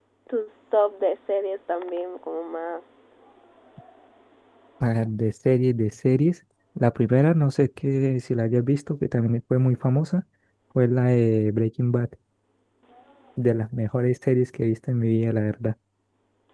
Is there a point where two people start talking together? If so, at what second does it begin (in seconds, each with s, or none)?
none